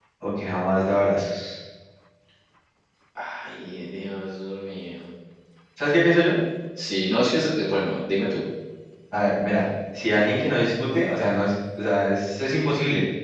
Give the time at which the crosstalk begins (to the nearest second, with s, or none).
none